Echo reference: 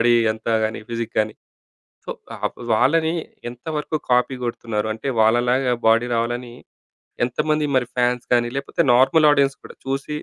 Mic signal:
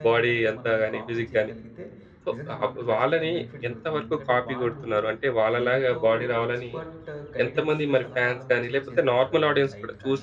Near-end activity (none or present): present